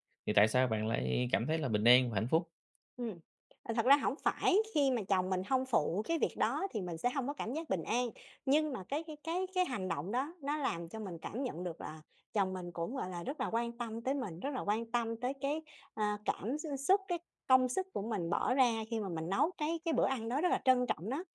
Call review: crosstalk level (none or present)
none